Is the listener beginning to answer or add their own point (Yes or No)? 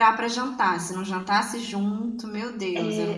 Yes